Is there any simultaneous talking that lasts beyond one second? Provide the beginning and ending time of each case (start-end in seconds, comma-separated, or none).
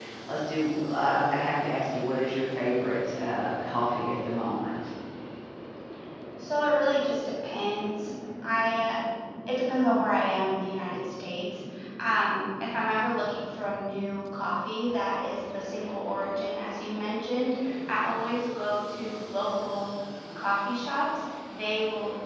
none